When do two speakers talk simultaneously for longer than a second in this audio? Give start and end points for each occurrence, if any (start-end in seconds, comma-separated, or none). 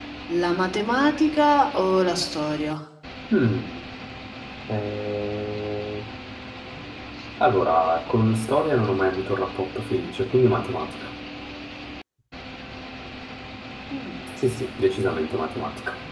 none